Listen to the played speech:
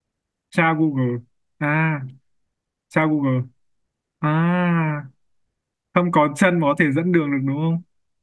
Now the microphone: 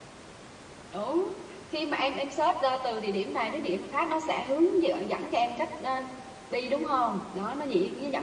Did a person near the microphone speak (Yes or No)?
Yes